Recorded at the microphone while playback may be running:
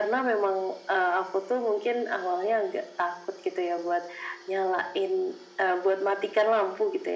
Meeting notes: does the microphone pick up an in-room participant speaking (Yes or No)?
No